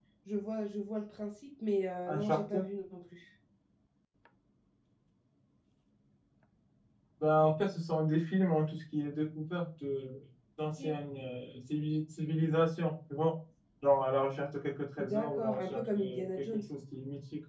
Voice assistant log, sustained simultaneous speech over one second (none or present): present